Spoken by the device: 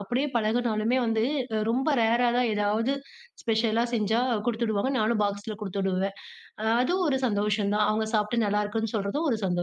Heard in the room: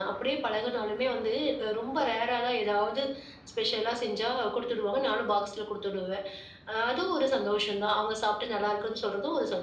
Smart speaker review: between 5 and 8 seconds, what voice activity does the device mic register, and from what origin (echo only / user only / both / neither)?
echo only